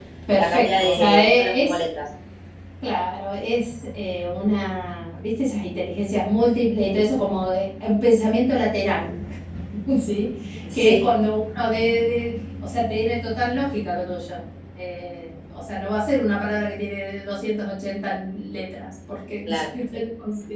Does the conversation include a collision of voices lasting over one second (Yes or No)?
Yes